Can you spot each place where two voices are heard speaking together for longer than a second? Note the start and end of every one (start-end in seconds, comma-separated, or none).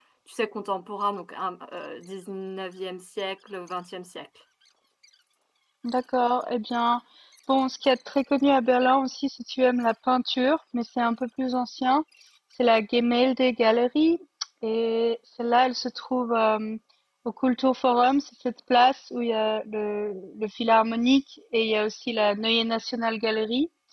none